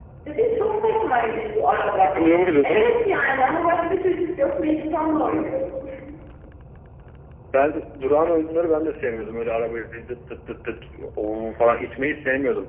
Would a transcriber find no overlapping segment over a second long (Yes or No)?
Yes